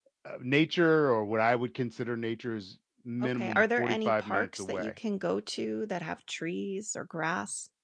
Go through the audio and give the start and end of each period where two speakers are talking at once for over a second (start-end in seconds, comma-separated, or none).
3.3-4.9